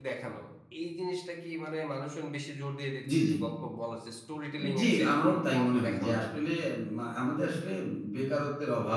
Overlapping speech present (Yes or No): Yes